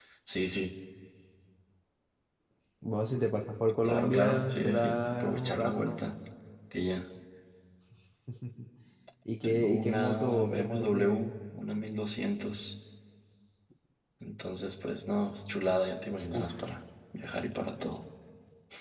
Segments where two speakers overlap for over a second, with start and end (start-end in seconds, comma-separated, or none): 3.8-6.1, 9.4-11.2